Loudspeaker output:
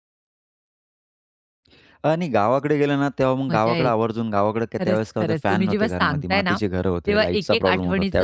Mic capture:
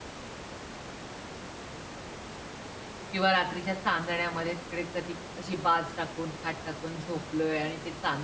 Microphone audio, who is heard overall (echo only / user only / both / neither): user only